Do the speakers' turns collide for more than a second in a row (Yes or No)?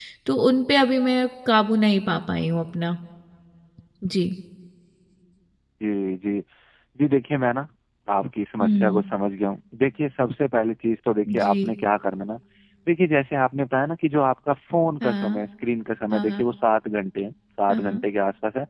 No